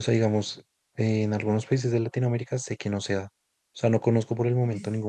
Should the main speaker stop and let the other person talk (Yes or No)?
No